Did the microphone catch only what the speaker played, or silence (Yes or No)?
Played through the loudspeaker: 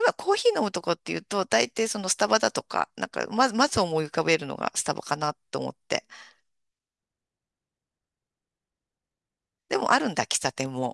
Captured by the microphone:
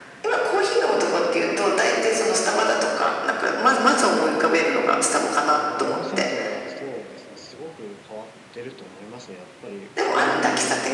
No